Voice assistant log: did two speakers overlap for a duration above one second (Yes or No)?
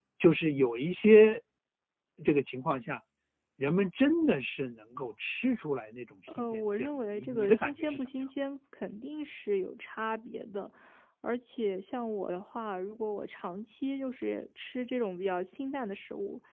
Yes